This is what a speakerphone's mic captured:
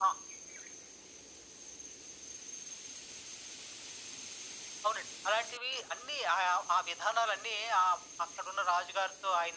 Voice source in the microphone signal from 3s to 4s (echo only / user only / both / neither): neither